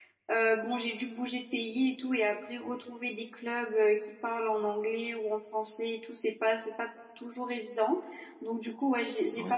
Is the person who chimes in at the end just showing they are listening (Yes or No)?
Yes